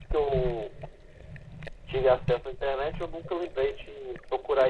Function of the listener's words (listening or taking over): taking over